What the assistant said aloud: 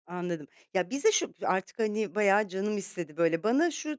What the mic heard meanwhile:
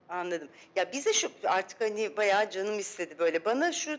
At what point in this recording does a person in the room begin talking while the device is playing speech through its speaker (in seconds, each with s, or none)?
none